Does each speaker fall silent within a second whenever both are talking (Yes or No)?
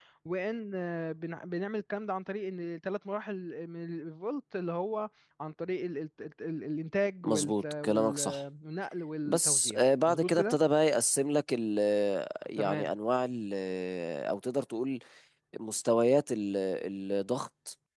No